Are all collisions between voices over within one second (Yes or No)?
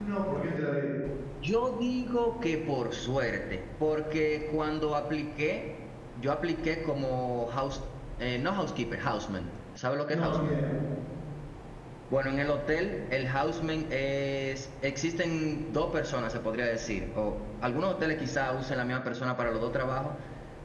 Yes